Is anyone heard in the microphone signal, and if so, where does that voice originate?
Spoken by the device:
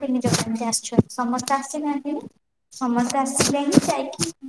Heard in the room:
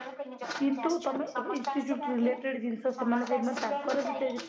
both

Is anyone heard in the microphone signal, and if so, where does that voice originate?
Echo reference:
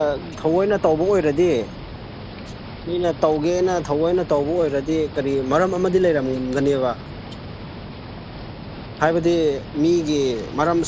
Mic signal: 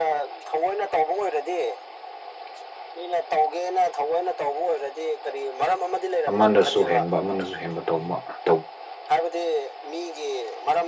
both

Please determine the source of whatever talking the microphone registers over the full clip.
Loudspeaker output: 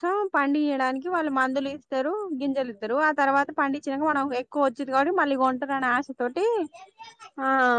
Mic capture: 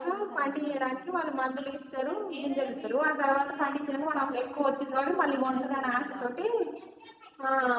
both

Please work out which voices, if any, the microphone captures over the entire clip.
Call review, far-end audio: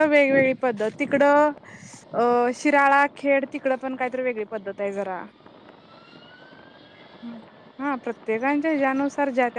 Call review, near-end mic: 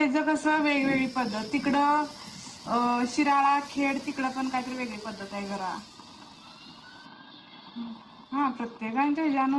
echo only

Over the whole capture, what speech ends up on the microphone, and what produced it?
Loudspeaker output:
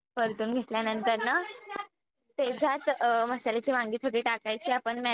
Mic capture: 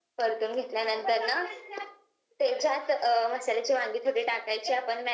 echo only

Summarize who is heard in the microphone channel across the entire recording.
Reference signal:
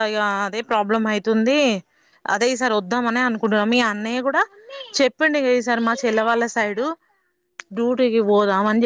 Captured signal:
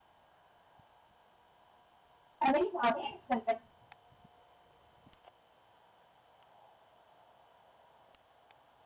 user only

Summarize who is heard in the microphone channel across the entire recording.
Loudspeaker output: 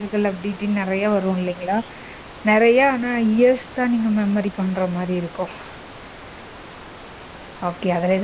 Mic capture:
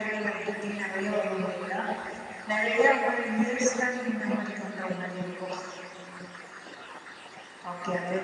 echo only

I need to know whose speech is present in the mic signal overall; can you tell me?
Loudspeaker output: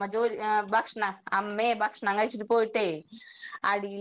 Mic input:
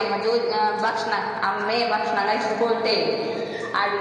echo only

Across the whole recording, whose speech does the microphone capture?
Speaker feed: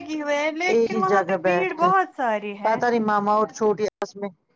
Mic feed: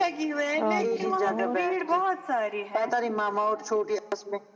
both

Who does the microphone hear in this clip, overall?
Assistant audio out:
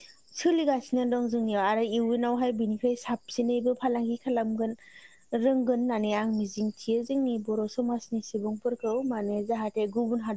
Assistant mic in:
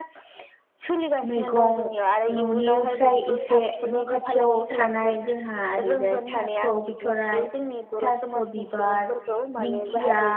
both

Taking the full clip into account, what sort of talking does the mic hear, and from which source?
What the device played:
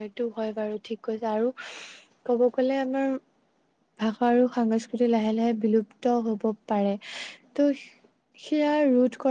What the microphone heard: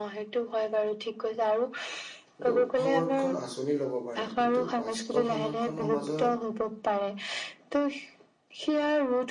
both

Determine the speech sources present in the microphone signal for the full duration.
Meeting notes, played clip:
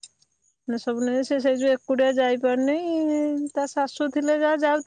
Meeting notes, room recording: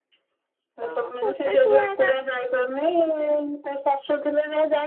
both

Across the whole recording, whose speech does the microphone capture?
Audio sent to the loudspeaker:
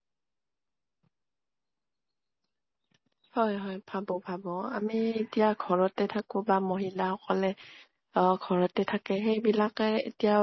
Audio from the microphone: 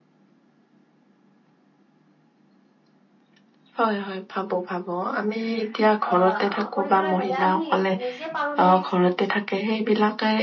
both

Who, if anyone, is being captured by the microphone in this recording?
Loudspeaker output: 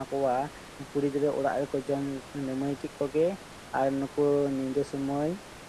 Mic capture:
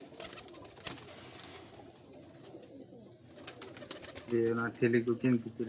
user only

